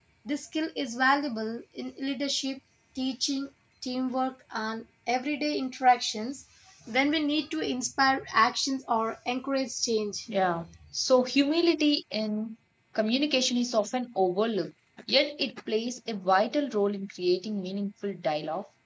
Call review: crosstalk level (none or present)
none